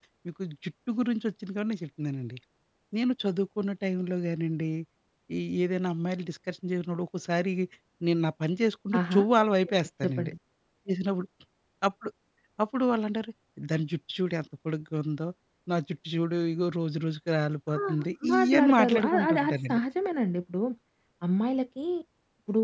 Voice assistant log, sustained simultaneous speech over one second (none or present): present